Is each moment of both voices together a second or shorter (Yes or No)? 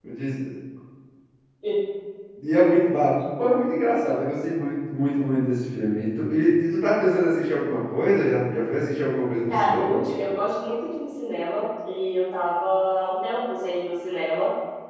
Yes